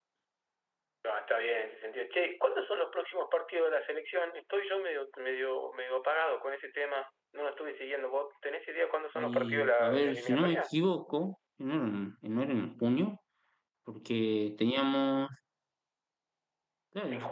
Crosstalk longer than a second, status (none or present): present